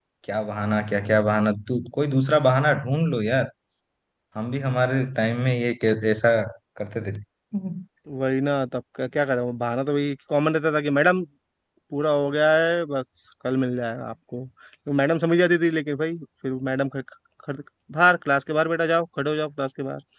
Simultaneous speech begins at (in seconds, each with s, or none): none